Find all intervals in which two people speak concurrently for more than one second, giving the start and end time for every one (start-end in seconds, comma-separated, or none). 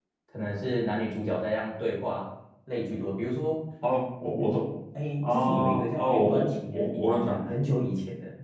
5.2-7.5